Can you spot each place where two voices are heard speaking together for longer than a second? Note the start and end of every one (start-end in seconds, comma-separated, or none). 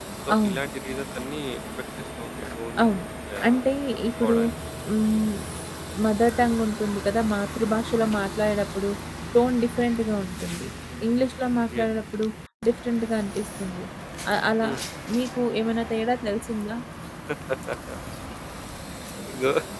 none